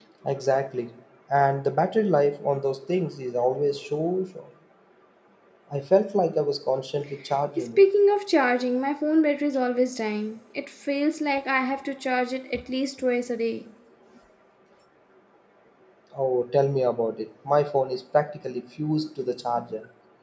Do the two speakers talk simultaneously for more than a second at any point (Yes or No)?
No